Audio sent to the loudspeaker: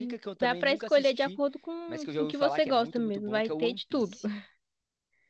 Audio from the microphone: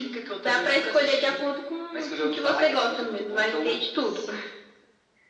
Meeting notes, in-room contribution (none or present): none